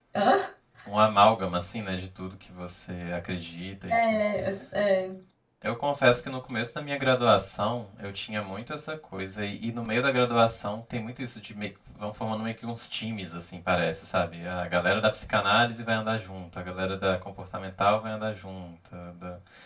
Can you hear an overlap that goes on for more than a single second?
No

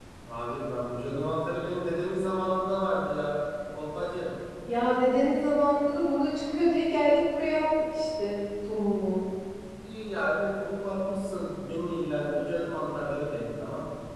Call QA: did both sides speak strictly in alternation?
Yes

